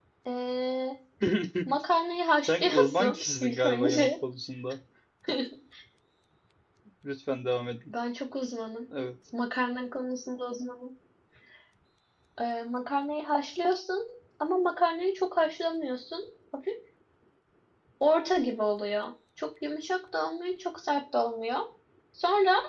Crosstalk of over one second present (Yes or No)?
Yes